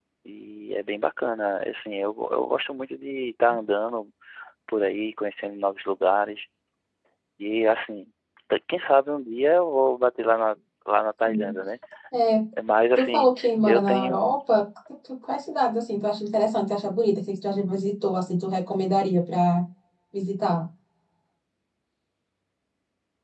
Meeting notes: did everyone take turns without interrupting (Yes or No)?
No